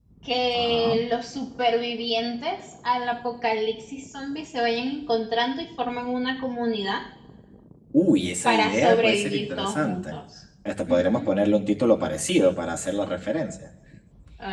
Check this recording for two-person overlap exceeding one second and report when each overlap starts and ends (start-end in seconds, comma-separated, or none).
8.5-10.2